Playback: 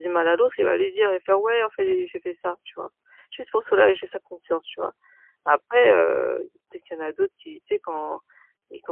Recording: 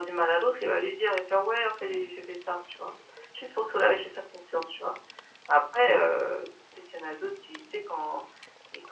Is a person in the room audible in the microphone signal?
No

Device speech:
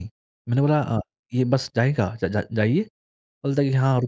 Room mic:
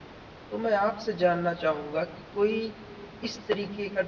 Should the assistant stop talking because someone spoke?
Yes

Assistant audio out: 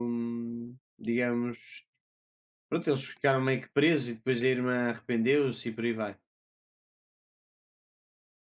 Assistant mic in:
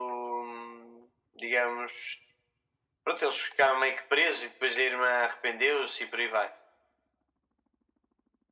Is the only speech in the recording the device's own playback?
Yes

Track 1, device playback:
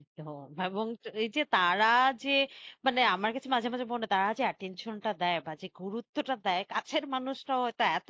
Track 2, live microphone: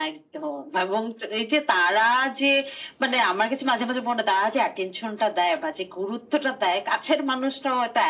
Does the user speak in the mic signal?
No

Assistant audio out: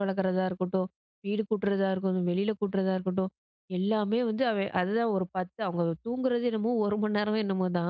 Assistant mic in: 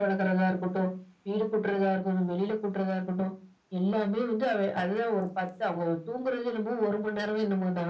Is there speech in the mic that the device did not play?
No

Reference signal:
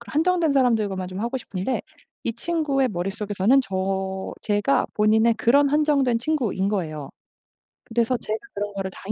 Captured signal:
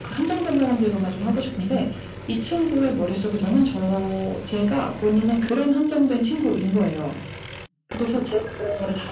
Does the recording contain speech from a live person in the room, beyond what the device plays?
No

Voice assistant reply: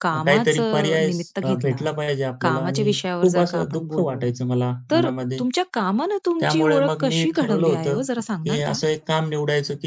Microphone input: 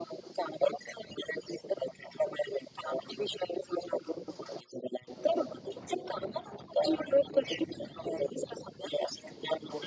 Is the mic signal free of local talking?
Yes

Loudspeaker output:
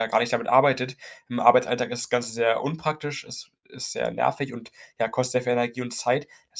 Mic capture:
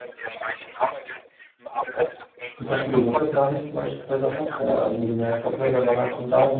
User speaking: Yes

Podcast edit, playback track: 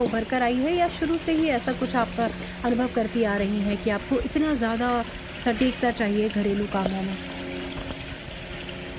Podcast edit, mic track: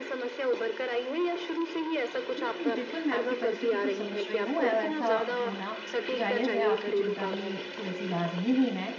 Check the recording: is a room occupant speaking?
Yes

